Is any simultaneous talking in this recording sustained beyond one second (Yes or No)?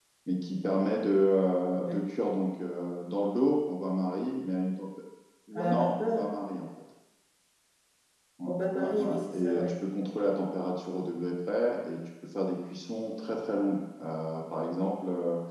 Yes